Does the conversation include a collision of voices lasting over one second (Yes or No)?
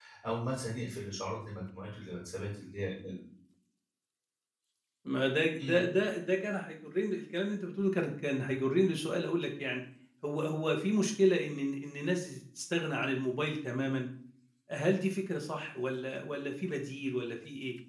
No